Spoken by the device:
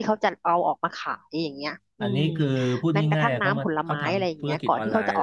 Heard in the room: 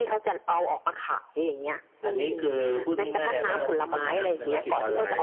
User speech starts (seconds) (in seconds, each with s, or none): 3.1 s